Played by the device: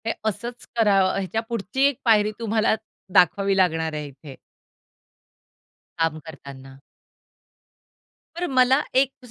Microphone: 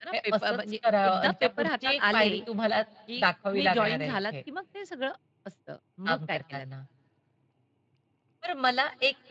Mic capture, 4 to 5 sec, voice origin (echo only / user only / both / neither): both